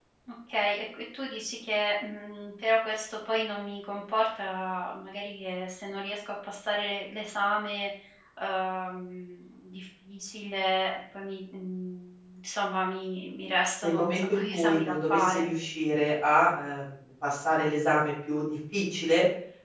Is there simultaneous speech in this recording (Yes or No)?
Yes